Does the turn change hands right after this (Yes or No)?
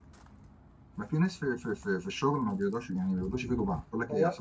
Yes